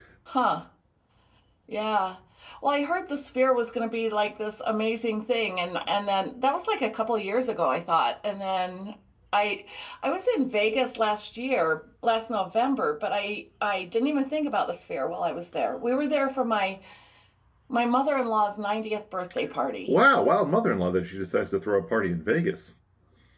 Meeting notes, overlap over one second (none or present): none